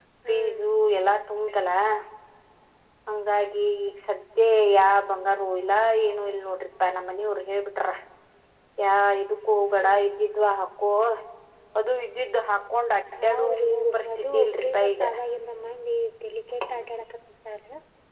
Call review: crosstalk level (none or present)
present